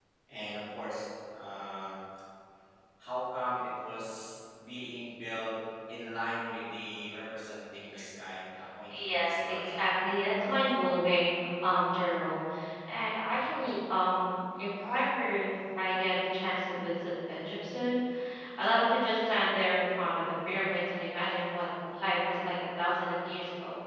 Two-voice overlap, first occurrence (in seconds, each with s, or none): 8.9 s